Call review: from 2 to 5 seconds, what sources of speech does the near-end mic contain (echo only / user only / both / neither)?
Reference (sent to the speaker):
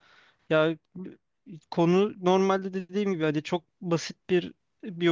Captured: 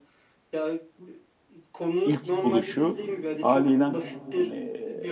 both